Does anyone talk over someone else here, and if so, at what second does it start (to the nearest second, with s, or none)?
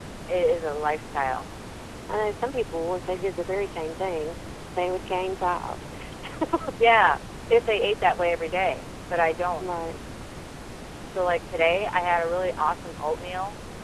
none